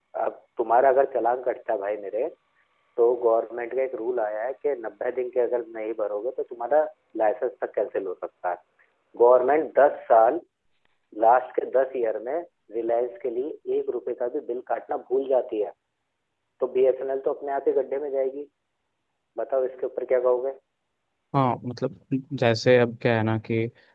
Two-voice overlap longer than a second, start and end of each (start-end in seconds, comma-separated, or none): none